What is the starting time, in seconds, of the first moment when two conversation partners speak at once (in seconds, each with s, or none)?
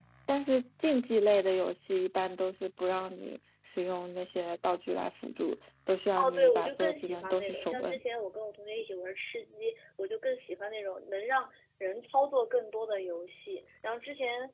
6.2 s